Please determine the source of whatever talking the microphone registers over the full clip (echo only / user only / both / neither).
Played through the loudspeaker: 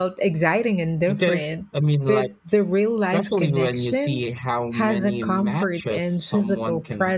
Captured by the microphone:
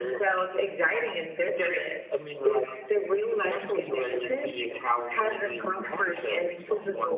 both